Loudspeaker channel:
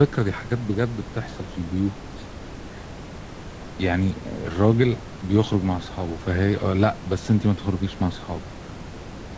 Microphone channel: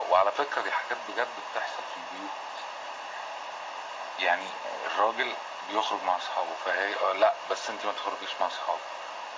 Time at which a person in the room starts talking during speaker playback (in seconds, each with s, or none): none